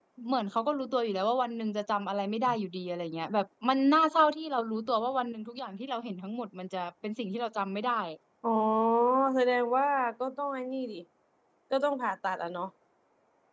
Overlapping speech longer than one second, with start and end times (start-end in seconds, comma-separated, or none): none